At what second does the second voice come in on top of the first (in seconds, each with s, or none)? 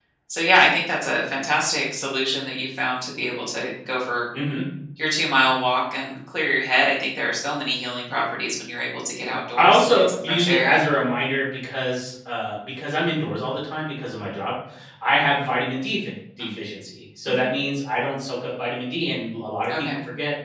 9.6 s